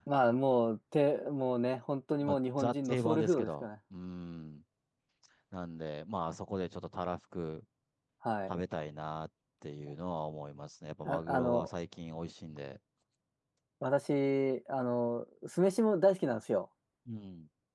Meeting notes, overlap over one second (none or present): present